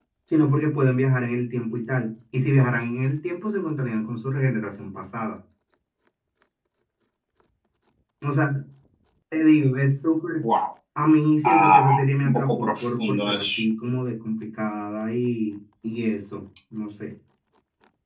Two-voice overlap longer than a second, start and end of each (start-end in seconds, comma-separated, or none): 11.4-13.6